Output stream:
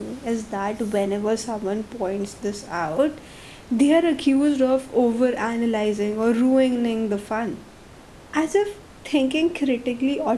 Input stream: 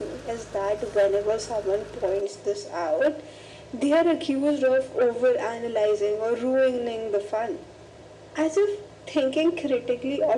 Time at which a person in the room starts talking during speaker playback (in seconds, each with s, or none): none